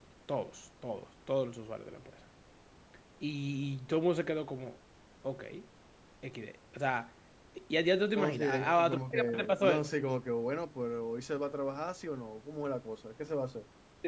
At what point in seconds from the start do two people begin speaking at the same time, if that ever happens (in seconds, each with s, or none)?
8.1 s